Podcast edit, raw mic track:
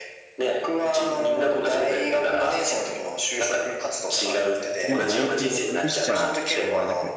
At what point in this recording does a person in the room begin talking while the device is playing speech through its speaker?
4.8 s

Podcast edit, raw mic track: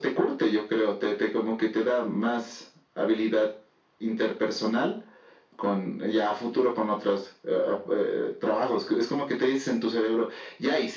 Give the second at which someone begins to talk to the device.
none

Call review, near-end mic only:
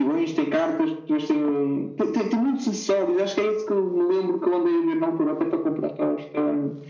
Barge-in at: none

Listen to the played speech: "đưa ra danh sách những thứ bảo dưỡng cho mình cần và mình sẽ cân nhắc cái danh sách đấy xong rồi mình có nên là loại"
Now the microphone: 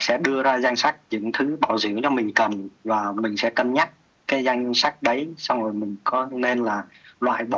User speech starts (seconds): none

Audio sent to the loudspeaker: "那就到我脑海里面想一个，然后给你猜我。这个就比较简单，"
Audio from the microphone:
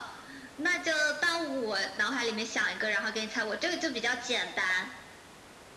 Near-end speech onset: none

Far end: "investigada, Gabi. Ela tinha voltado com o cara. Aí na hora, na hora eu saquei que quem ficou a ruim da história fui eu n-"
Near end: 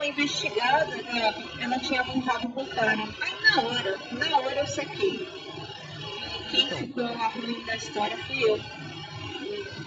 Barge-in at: 6.5 s

